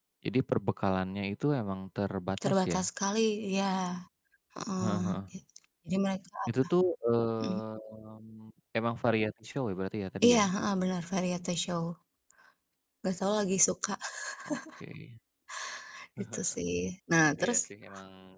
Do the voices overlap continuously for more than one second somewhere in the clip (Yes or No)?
No